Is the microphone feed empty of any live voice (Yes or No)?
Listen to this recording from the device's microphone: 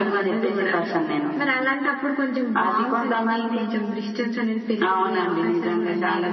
Yes